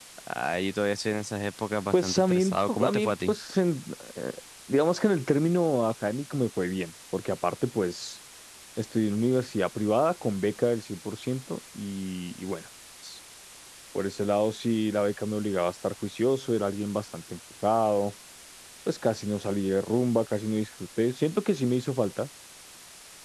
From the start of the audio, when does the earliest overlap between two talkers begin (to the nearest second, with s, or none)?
2 s